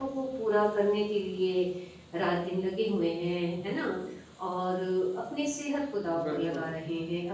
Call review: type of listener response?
listening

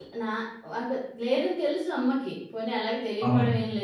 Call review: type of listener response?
listening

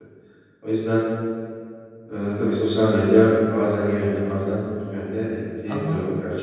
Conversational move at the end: taking over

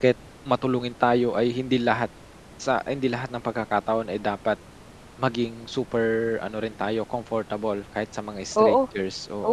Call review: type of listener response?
taking over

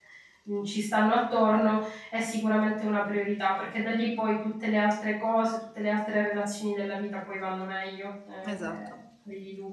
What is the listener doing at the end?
listening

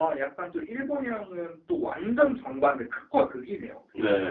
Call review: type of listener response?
taking over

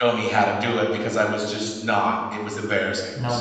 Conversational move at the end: taking over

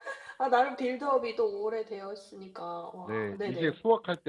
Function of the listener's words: taking over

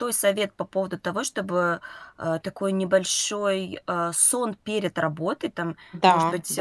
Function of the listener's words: listening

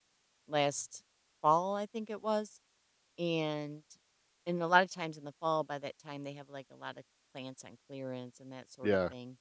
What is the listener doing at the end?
taking over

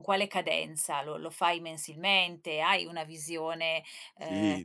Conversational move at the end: taking over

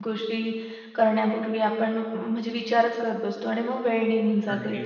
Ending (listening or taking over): taking over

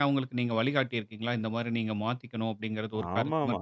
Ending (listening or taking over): taking over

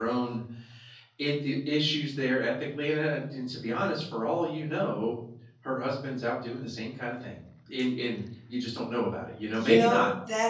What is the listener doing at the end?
taking over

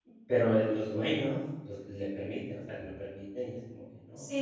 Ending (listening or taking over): taking over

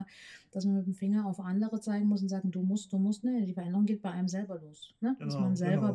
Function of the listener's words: listening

